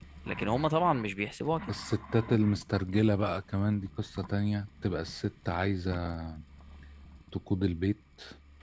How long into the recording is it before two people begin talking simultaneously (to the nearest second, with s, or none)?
none